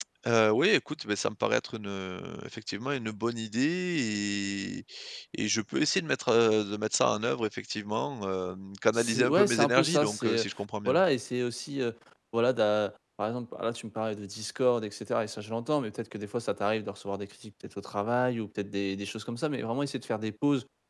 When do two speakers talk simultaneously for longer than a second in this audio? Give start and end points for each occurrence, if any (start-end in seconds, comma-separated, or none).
8.9-10.5